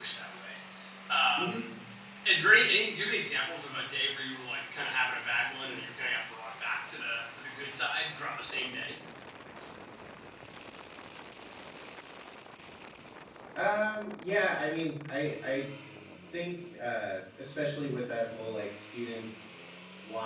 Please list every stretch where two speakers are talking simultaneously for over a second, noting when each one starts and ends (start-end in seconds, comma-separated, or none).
none